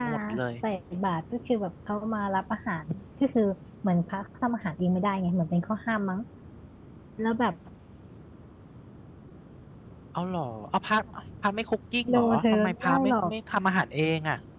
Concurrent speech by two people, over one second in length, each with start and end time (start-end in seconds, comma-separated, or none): 12.1-13.3